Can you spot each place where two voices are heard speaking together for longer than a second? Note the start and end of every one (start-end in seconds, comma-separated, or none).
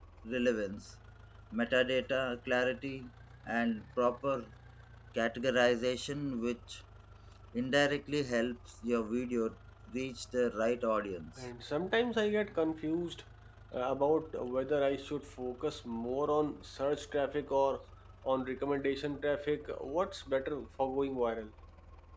none